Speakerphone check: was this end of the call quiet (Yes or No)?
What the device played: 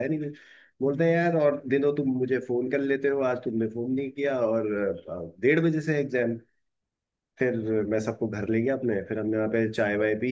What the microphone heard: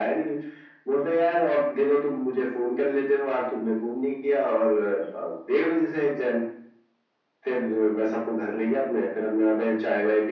Yes